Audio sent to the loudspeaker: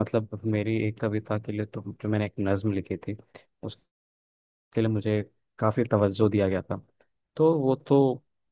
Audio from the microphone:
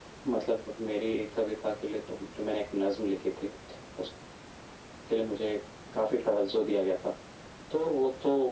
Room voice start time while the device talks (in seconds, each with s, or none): none